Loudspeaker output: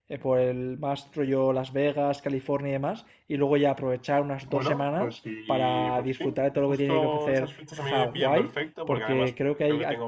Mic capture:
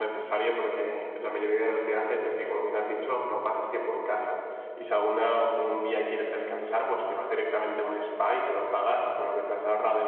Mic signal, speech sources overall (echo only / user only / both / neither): user only